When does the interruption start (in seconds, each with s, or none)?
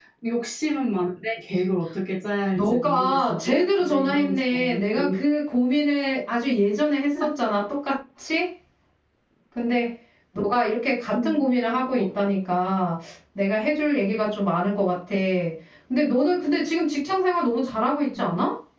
2.5 s